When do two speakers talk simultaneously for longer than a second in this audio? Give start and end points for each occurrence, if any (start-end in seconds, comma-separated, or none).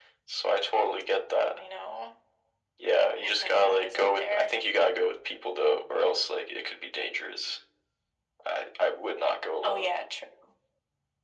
3.2-4.5